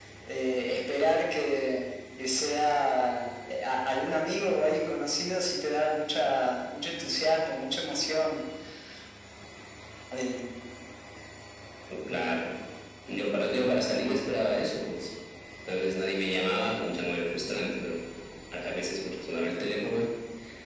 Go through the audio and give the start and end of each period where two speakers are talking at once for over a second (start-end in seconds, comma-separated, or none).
none